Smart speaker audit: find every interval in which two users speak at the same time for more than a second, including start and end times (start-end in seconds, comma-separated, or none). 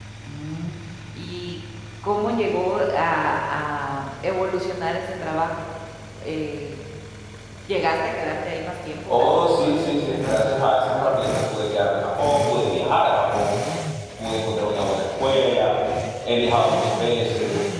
9.1-11.2